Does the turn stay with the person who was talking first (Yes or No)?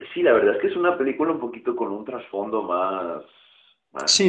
No